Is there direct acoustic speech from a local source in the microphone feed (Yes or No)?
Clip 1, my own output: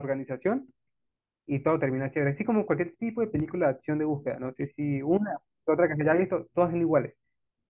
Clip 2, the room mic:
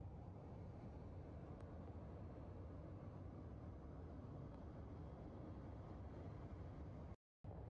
No